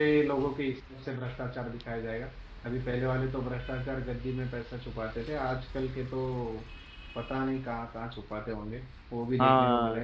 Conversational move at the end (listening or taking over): taking over